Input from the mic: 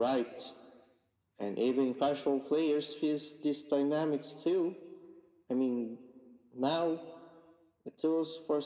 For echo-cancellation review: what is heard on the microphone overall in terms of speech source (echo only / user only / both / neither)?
echo only